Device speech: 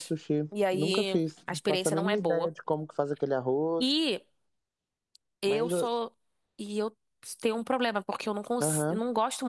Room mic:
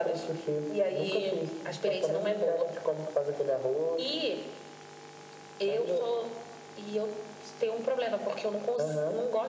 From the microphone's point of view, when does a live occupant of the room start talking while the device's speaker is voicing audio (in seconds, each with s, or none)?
none